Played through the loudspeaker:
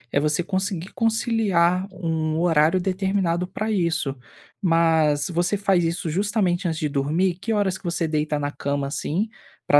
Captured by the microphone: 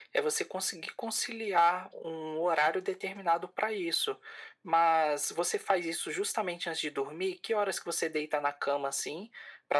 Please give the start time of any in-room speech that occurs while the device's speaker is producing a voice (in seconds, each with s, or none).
none